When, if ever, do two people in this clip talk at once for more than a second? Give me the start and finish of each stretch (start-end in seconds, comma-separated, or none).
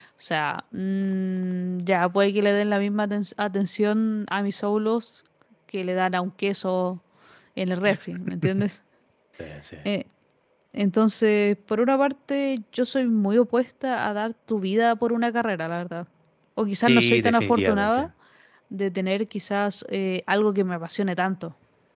16.8-18.1